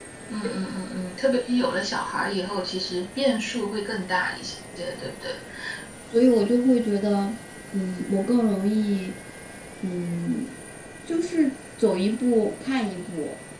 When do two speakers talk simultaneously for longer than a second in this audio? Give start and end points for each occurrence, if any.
none

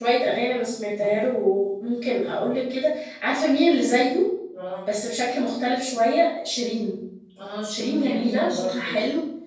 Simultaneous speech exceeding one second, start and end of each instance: 7.7-8.9

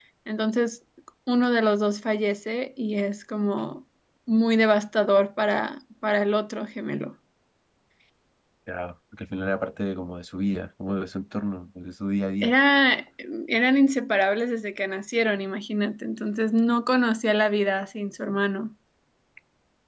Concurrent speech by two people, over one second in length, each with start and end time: none

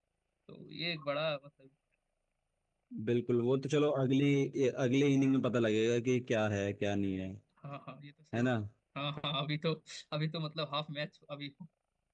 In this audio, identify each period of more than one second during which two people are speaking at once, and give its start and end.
none

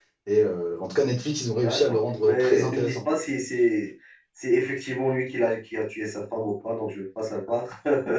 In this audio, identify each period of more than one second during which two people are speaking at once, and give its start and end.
1.6-3.0

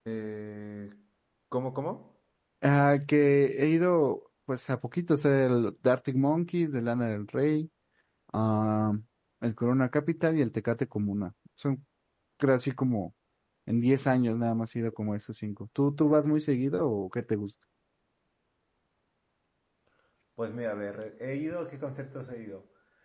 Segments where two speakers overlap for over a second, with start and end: none

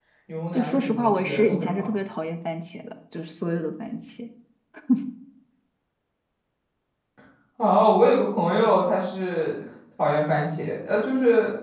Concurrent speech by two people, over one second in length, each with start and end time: 0.5-1.9

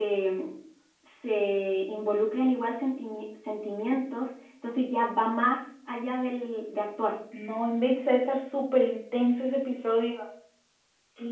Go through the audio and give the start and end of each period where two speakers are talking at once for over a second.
none

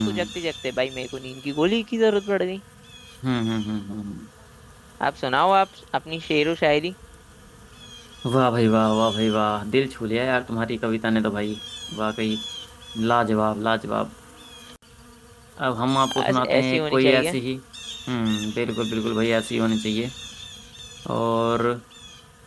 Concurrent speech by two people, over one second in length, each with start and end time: 16.2-17.4

